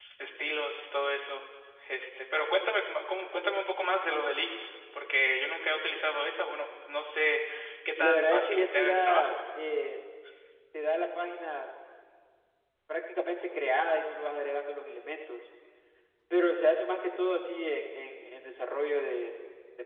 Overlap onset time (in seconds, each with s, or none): 8.0 s